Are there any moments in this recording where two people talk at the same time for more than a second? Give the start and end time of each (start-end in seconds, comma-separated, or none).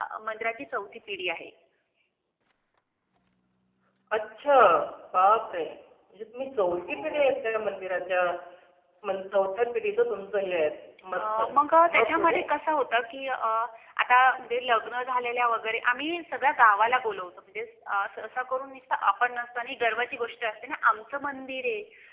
11.1-12.4